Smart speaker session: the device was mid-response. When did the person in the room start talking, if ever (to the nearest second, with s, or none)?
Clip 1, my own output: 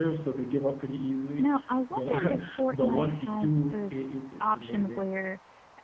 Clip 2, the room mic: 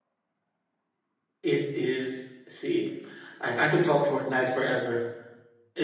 1 s